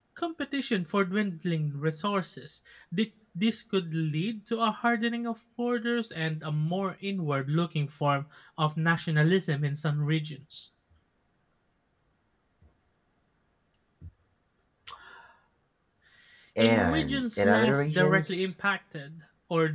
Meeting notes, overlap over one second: present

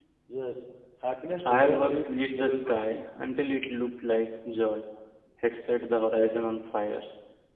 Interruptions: present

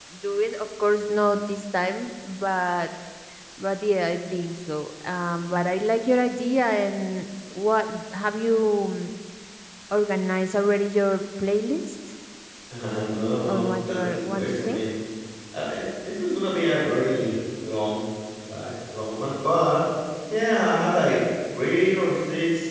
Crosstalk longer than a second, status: present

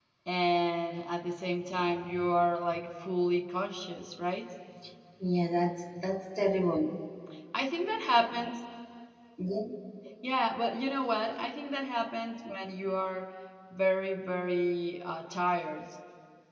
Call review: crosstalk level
none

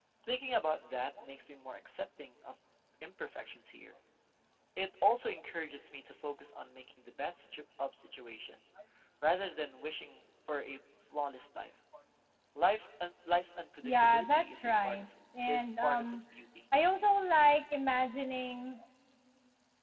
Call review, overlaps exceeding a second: present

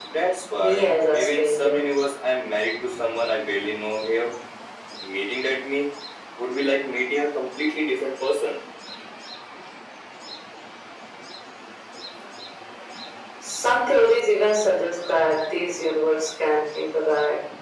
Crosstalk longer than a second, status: present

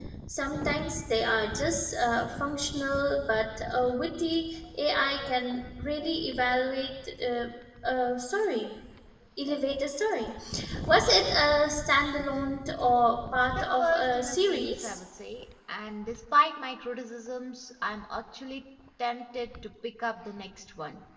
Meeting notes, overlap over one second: present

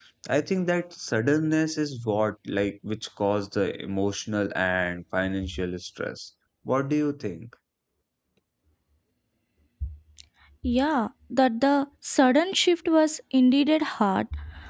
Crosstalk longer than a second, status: none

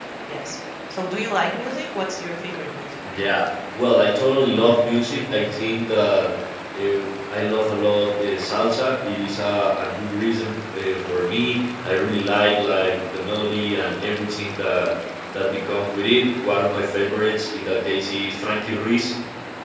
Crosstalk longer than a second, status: none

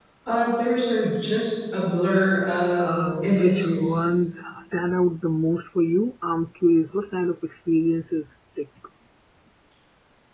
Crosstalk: present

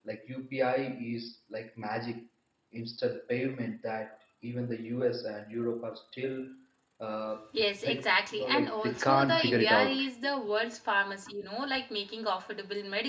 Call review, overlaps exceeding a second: present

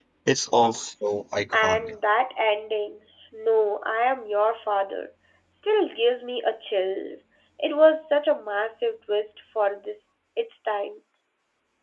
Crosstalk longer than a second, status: none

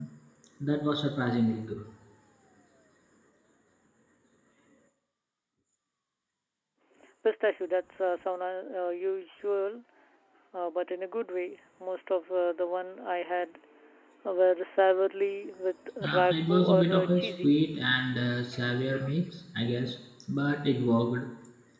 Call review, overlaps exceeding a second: present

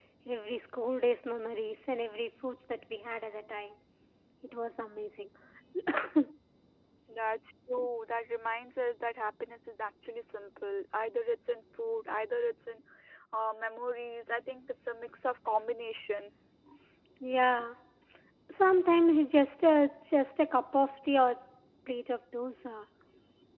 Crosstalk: none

